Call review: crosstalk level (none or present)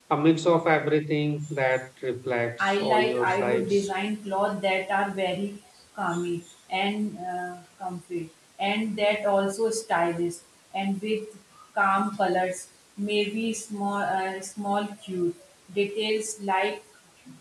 present